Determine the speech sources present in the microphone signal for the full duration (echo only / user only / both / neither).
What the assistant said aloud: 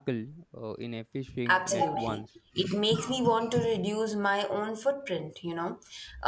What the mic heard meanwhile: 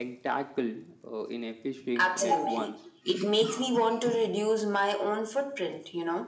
echo only